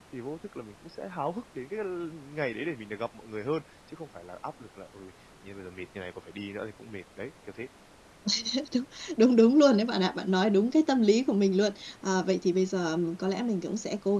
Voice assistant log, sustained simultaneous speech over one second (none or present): none